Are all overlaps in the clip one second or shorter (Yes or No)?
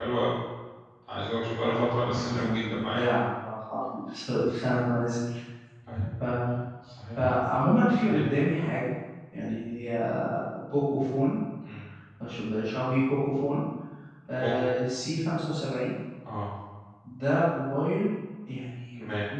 No